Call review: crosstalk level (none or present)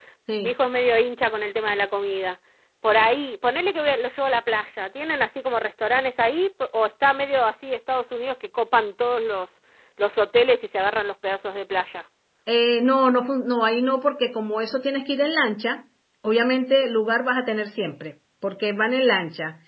none